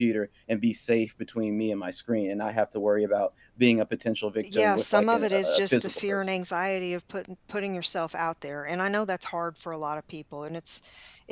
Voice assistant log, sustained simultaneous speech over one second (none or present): present